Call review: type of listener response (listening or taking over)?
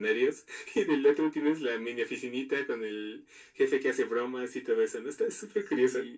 taking over